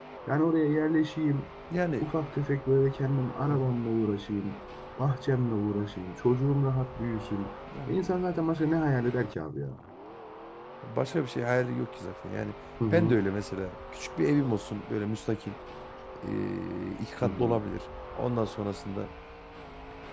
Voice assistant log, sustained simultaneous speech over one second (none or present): none